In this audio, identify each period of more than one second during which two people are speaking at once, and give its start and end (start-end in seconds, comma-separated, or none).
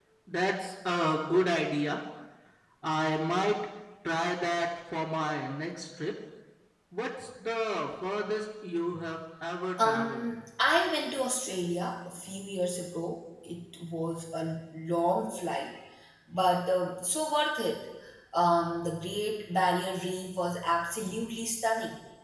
none